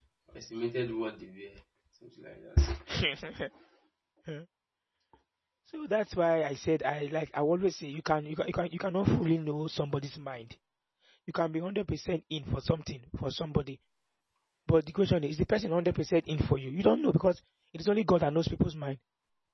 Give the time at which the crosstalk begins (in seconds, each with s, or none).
none